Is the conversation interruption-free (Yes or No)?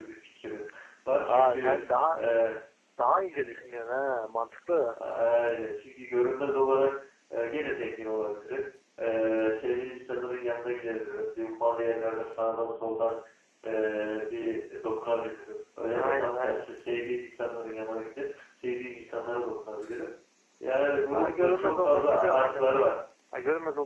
No